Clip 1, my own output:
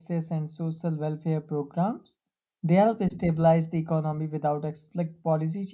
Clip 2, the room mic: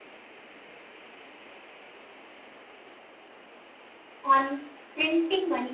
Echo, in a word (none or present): none